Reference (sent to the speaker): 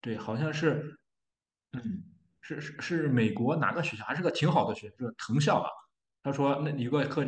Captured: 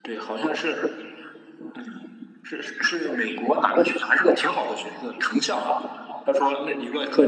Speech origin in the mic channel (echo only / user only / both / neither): echo only